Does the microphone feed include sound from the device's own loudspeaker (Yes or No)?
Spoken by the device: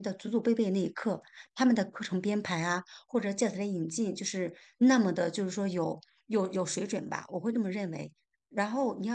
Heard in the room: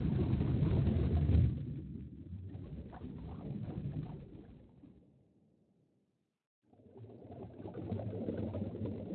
No